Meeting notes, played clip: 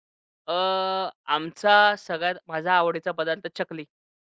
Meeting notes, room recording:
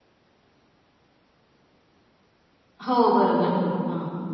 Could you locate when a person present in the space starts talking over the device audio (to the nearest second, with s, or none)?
3 s